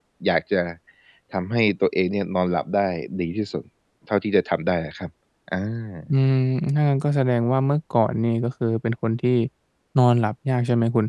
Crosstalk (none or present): none